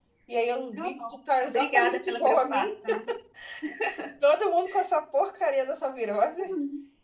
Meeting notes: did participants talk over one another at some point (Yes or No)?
Yes